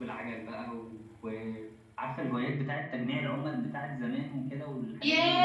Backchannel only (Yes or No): No